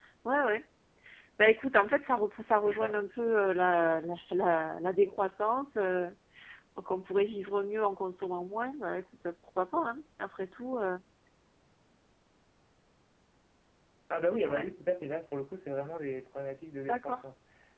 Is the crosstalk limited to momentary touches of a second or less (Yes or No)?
Yes